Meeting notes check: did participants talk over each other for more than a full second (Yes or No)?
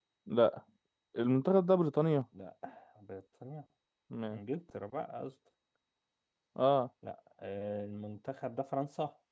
No